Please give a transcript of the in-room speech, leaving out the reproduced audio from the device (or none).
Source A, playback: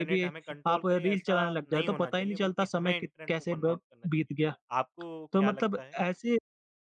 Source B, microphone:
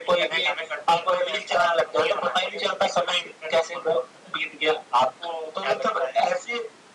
none